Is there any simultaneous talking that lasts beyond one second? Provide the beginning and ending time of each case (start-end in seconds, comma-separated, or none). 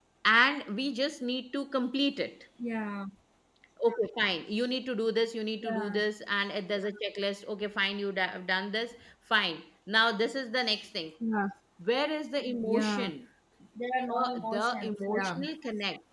14.1-15.4